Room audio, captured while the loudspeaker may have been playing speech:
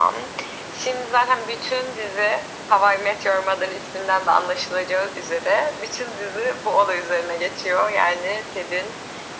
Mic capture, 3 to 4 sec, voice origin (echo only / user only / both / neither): echo only